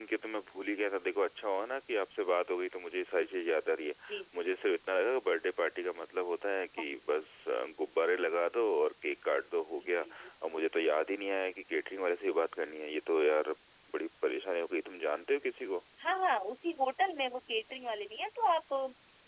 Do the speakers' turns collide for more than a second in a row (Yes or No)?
No